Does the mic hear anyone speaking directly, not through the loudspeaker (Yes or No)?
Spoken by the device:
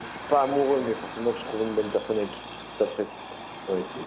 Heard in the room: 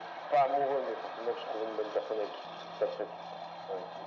No